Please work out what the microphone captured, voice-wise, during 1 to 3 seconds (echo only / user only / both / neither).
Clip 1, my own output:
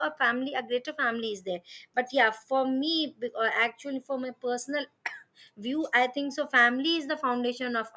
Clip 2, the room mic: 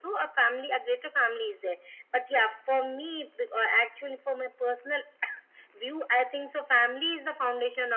echo only